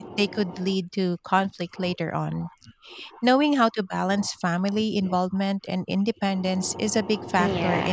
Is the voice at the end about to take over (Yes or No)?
Yes